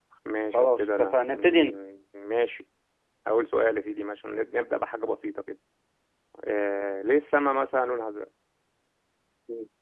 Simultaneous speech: Yes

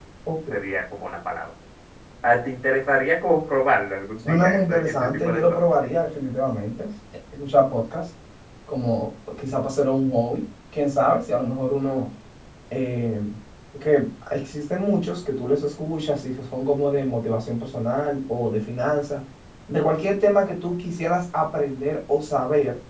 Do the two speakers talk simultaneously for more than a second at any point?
Yes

